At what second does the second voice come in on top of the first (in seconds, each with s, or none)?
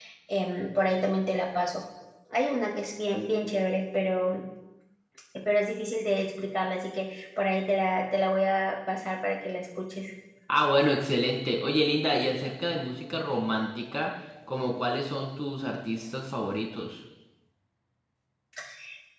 none